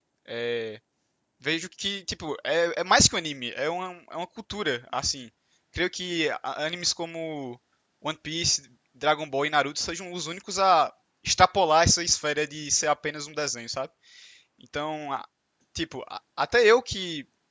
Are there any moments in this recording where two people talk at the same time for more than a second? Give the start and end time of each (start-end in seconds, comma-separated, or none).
none